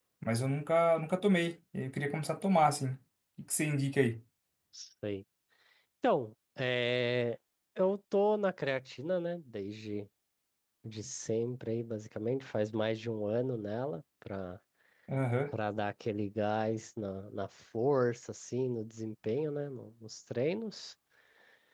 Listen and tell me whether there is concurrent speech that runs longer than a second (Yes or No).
No